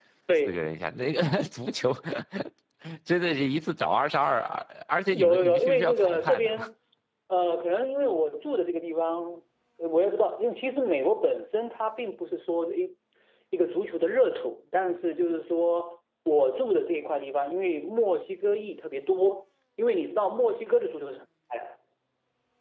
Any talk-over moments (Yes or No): Yes